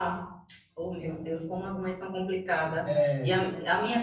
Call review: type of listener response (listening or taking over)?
listening